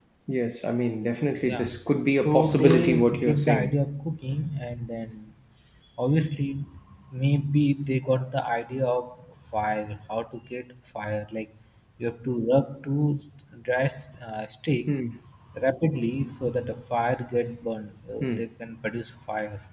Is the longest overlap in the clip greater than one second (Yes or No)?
Yes